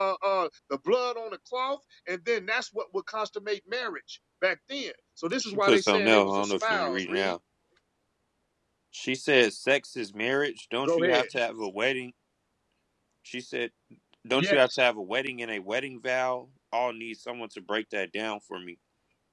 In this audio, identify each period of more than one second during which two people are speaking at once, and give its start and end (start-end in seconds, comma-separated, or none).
5.4-7.3